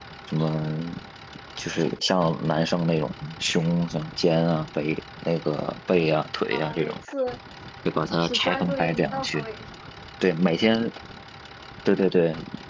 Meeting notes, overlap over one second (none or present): present